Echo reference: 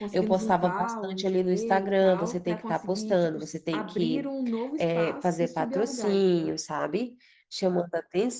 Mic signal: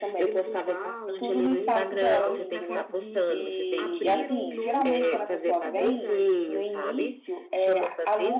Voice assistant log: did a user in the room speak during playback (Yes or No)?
Yes